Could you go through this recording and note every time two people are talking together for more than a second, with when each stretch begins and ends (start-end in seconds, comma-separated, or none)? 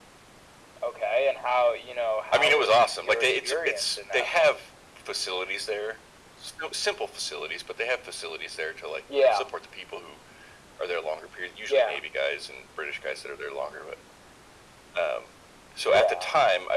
2.3-4.5